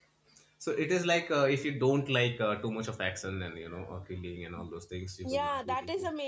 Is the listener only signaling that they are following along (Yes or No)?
No